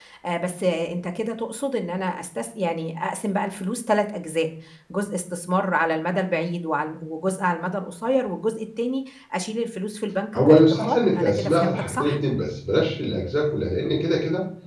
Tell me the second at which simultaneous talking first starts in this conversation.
10 s

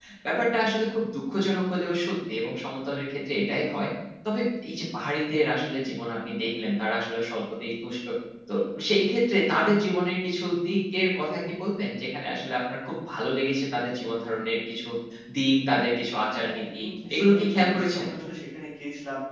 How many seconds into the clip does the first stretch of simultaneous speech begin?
16 s

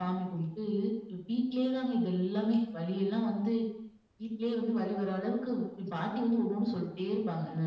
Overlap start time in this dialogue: none

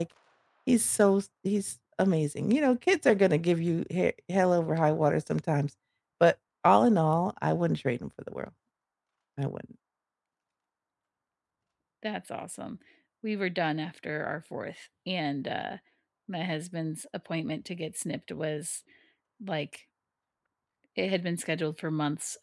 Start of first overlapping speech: none

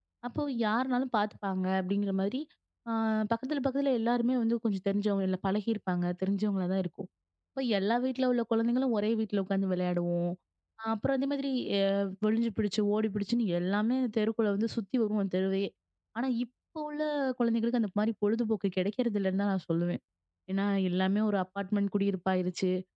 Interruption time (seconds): none

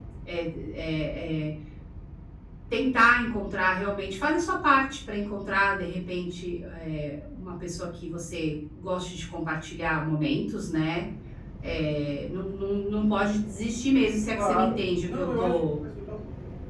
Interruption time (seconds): 14 s

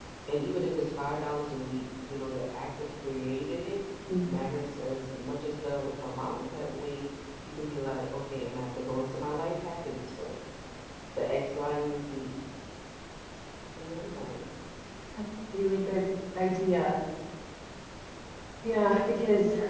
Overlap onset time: none

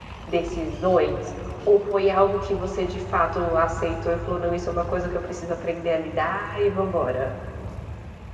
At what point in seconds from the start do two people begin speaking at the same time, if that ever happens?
none

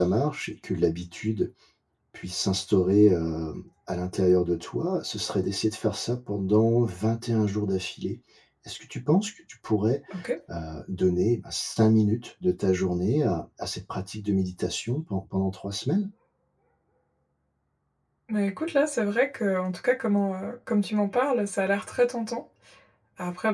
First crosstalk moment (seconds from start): none

